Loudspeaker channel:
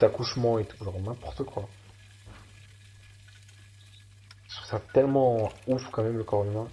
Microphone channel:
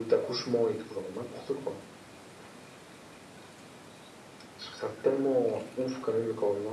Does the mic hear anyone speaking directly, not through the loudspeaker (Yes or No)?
No